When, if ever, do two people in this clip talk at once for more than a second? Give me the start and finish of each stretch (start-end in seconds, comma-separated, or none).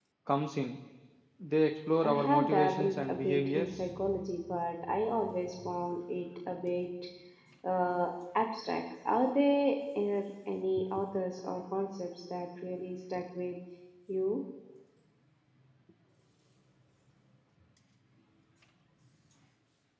2.0-3.8